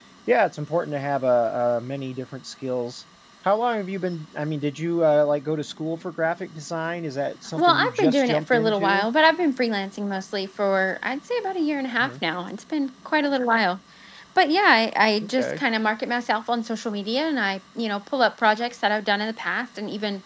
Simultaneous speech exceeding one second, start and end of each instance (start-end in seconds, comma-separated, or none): 7.5-9.1